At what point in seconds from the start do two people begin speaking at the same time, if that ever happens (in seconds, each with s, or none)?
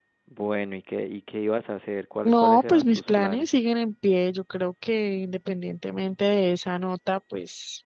2.2 s